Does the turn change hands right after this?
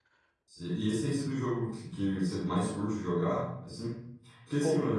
No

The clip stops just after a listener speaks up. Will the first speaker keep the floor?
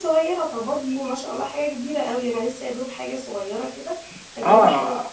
No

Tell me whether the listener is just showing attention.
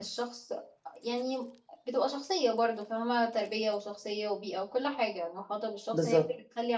Yes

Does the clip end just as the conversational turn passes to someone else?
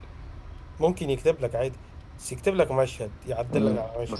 Yes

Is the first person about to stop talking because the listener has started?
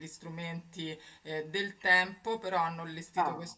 No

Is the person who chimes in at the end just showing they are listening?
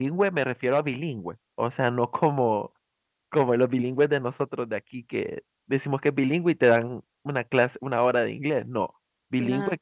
Yes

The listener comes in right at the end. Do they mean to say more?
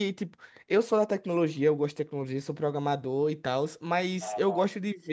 No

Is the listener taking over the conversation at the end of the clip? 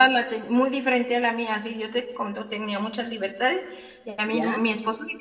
No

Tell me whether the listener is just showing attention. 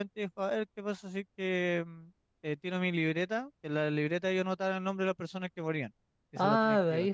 No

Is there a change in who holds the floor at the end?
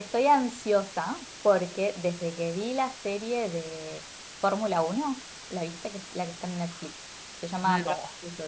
No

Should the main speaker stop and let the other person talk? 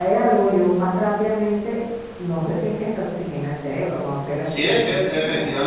Yes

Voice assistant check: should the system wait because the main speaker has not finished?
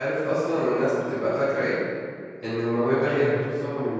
Yes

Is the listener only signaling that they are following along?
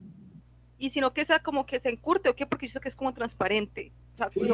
No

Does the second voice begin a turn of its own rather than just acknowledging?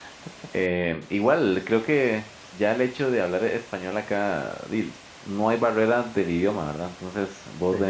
No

